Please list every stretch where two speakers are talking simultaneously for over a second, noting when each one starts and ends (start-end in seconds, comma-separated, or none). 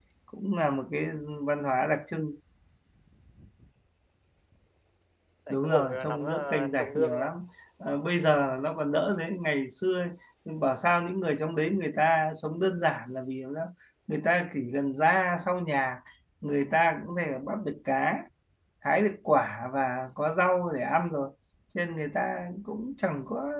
5.5-7.3